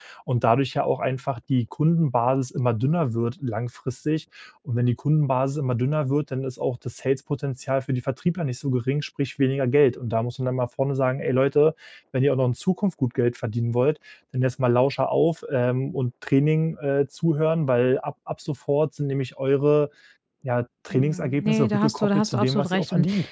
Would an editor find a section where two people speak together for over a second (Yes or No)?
Yes